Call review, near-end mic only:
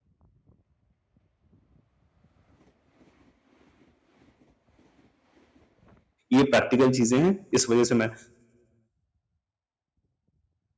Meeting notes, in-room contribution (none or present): present